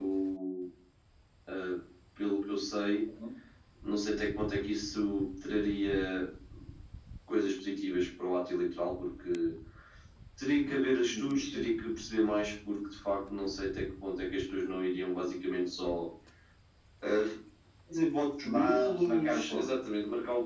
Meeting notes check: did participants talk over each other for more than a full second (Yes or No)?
Yes